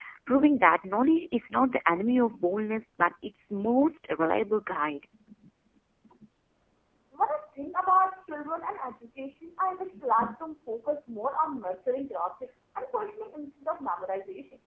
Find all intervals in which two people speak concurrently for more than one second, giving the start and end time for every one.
none

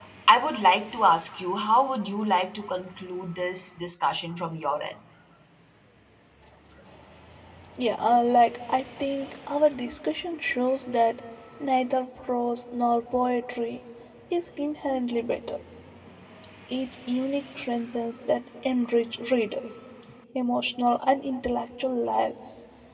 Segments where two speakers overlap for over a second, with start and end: none

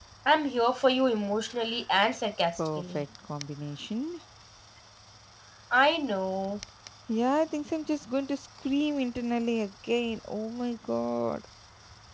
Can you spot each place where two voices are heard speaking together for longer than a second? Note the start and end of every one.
none

